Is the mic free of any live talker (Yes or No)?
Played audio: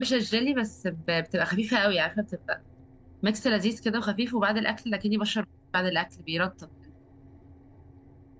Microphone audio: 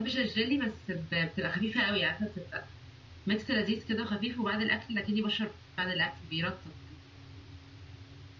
Yes